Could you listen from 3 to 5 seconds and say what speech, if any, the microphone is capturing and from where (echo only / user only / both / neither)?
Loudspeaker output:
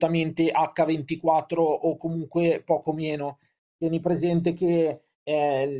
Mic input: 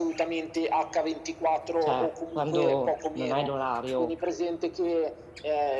both